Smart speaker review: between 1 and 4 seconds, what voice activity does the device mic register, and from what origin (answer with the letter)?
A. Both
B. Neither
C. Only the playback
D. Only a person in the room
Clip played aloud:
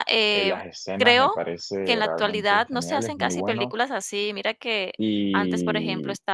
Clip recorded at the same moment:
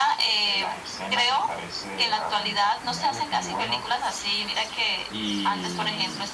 C